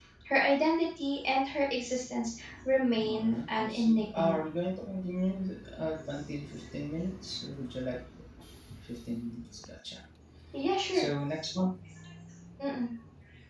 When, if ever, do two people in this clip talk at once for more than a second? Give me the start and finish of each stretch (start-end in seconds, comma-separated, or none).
3.0-4.4